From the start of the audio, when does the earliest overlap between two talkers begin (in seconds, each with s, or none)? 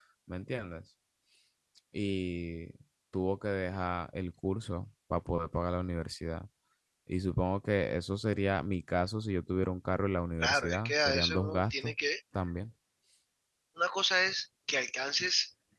10.4 s